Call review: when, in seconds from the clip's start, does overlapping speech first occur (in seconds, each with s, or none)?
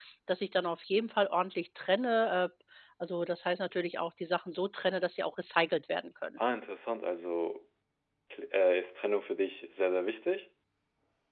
none